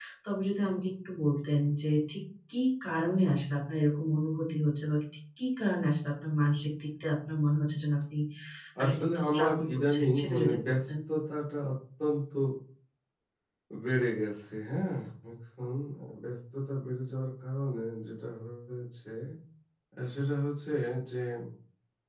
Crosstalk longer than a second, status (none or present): present